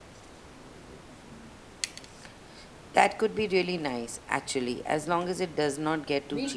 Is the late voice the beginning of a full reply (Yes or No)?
Yes